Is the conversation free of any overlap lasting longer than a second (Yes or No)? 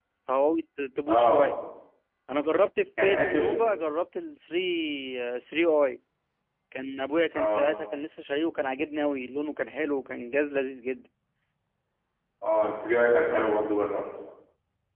Yes